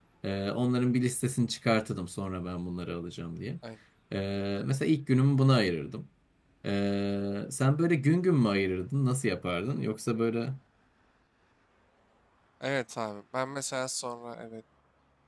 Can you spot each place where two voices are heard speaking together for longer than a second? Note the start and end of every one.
none

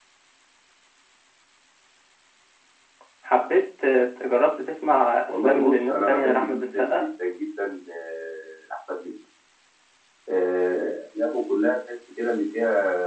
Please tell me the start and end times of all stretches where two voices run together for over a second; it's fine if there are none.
5.3-7.0

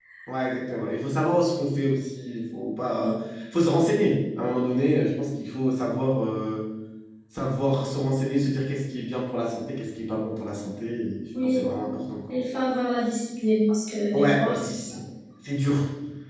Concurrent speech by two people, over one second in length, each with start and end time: none

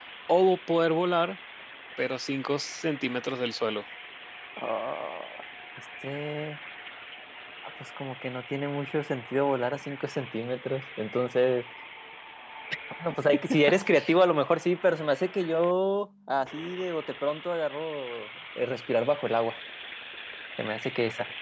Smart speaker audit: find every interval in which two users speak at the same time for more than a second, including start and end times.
none

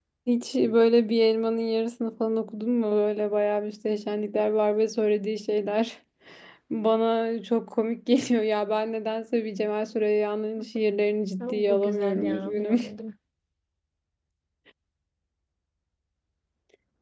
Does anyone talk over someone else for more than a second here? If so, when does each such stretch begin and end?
11.4-12.8

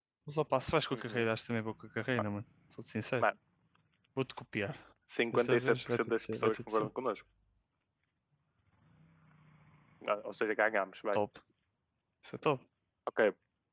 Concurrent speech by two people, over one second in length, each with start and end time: 5.3-6.9

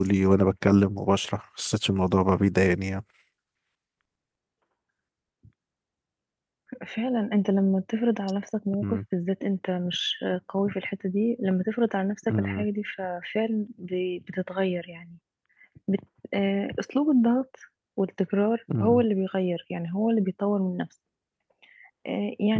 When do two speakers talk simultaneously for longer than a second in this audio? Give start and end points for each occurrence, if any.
none

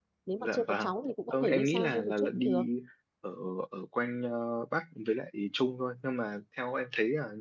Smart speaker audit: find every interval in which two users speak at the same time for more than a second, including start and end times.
1.3-2.6

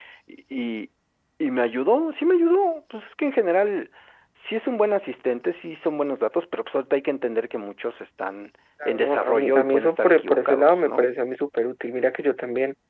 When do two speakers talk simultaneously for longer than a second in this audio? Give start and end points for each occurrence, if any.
8.8-11.1

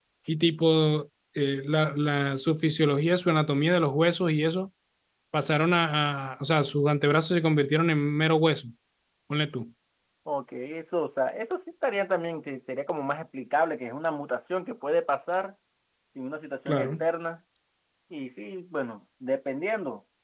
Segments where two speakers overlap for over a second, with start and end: none

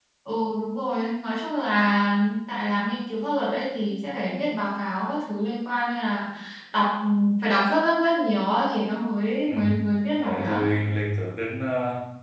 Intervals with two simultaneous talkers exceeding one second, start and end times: none

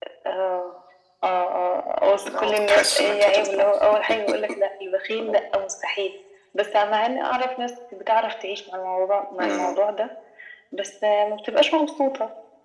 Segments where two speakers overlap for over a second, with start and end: 2.2-3.7

